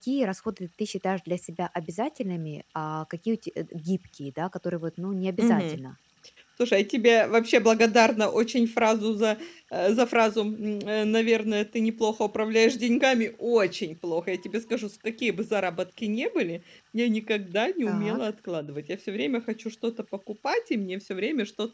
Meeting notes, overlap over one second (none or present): none